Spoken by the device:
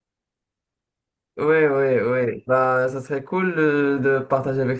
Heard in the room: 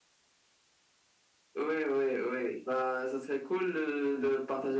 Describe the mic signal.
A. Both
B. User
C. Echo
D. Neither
C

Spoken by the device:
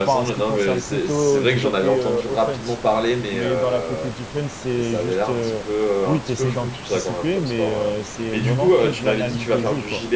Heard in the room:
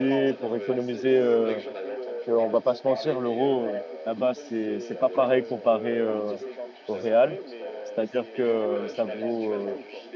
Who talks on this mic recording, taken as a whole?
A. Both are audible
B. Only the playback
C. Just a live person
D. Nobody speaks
A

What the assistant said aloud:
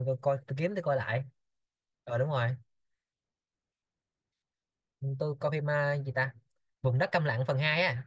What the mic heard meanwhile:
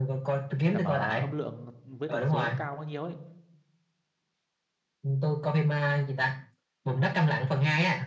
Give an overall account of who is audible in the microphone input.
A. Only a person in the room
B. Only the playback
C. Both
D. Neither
C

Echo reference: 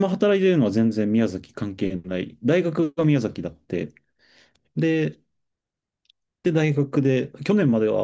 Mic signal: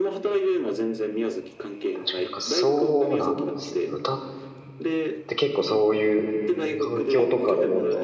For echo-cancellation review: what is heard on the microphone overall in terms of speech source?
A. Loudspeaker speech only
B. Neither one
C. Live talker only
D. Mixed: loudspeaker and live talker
D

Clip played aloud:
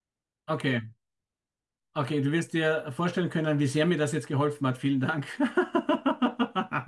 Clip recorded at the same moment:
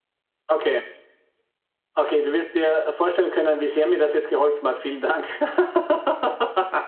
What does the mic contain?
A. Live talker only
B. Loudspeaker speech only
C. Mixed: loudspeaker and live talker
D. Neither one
B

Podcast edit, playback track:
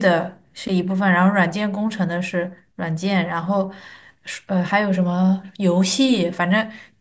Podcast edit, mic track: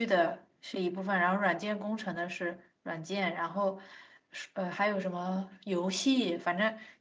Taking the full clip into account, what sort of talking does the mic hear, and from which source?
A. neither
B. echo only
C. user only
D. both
B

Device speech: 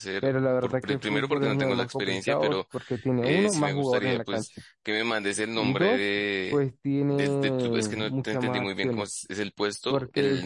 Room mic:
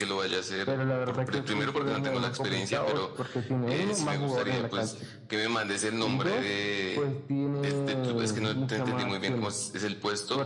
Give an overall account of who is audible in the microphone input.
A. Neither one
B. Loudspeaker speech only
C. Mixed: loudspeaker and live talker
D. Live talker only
B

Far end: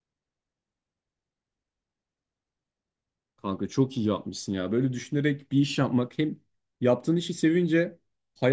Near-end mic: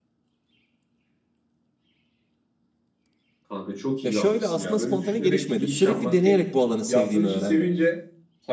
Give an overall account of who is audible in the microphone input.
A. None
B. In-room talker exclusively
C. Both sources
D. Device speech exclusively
C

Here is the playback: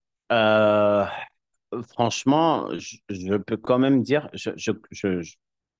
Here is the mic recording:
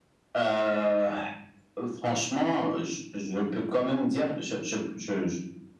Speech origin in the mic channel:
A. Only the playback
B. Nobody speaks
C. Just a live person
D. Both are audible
A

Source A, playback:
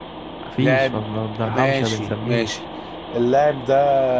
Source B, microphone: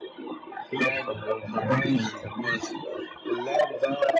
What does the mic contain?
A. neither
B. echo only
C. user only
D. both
B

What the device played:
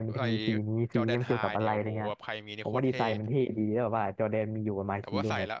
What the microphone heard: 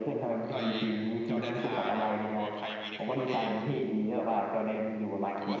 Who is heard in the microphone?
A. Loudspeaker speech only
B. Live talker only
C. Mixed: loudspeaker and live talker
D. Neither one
A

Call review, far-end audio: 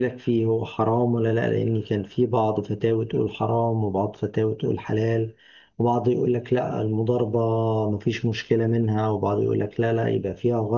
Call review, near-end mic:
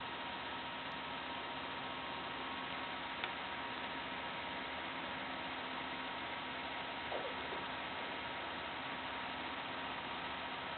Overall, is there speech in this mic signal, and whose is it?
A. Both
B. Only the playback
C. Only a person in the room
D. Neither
D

